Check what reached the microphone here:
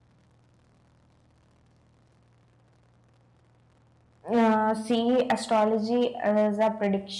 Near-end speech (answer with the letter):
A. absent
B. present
B